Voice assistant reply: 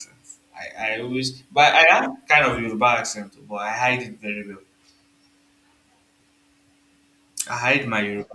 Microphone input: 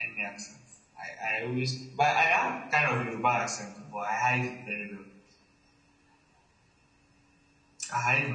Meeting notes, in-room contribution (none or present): none